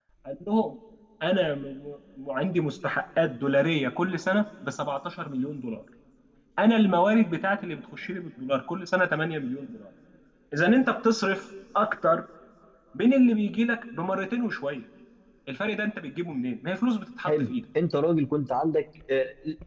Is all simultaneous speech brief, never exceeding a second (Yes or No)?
Yes